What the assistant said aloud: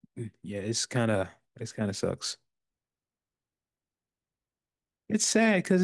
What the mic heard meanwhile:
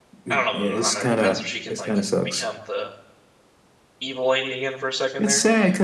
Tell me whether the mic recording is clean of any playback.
No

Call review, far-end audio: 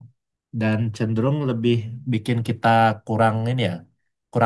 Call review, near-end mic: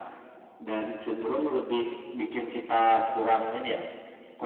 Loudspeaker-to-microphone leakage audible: Yes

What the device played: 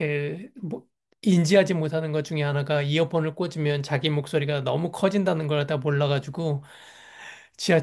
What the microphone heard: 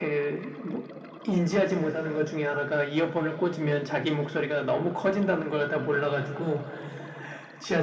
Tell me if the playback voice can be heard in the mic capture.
Yes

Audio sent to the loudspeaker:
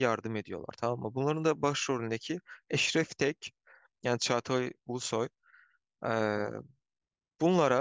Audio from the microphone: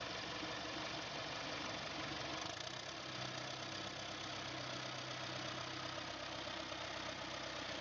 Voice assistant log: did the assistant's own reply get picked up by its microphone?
No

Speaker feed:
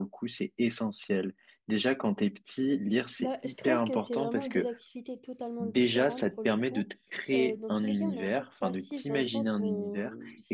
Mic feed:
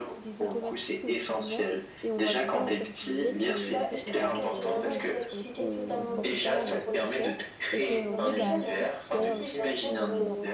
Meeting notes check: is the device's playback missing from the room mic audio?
No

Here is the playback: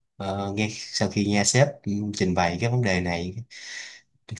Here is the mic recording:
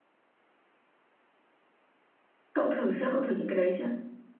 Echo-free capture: Yes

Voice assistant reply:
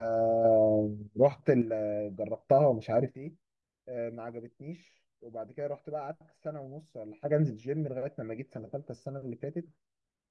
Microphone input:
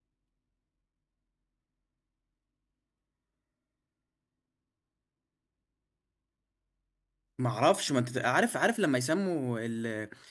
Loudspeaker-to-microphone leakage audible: No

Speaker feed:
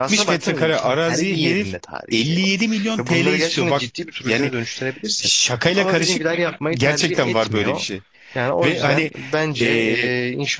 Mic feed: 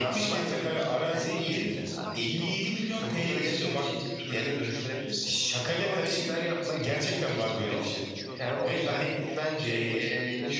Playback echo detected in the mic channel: Yes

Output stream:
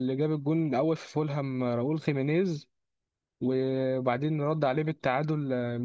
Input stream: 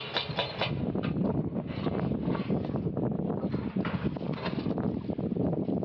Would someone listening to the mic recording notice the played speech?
No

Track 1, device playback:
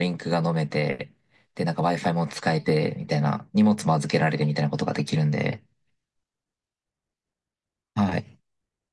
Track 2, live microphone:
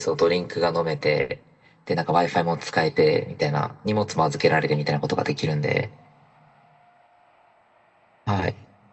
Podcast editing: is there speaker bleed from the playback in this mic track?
Yes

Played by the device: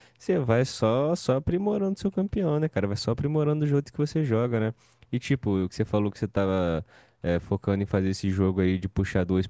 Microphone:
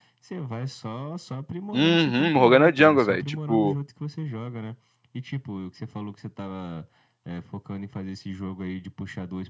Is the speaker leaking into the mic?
Yes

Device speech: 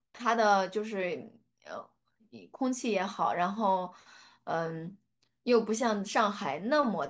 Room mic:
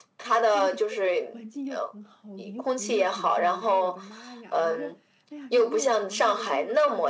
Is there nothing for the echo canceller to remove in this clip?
No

